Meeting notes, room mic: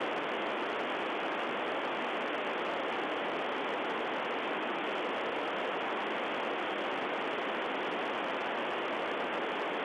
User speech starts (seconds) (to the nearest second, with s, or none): none